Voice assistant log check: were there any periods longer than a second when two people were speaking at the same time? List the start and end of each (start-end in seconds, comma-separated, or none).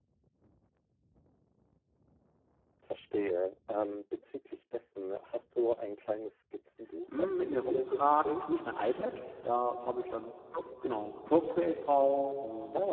7.2-8.6